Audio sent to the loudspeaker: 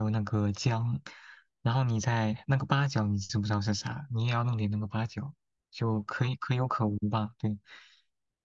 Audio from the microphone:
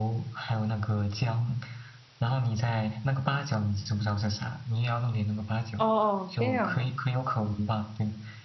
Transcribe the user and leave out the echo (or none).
哦哦，这样的